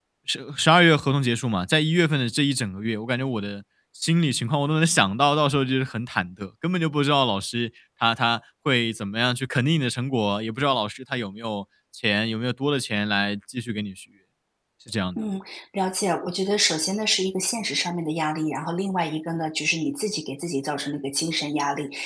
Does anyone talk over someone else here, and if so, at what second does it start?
none

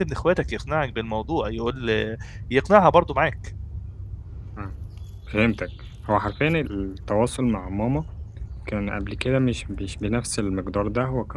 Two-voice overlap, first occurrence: none

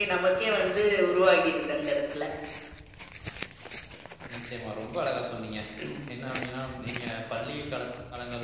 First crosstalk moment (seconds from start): none

